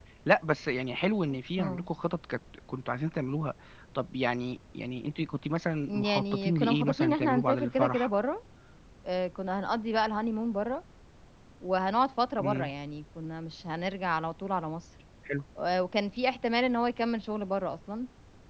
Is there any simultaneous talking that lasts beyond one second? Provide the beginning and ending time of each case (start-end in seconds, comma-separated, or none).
5.9-8.1